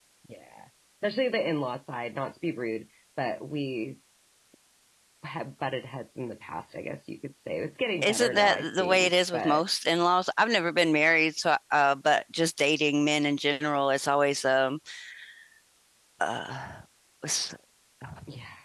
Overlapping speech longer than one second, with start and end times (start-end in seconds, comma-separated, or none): 8.0-9.6